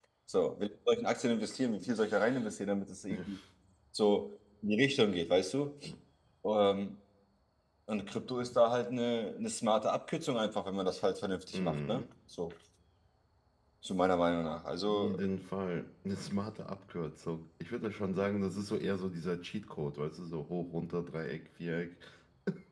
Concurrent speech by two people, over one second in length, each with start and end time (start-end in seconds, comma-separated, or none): none